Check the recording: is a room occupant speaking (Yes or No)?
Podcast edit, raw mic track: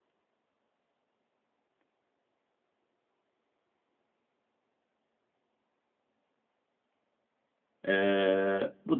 Yes